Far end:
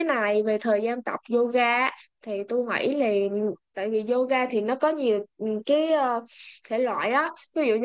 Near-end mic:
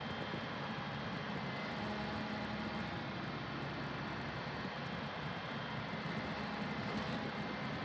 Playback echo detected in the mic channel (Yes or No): No